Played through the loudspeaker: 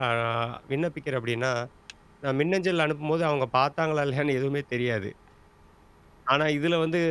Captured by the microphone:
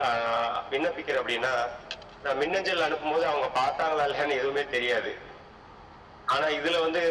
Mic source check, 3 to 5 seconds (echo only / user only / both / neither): echo only